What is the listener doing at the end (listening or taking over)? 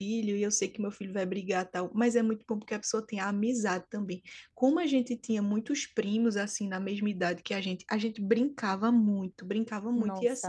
listening